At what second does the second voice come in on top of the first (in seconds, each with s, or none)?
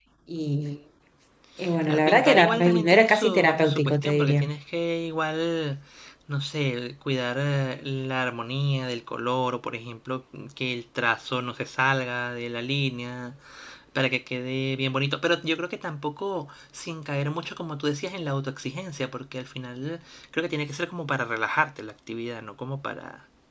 1.9 s